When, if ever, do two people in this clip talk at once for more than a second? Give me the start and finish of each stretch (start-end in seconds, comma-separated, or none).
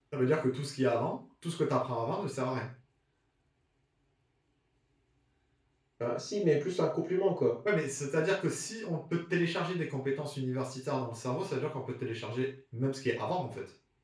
none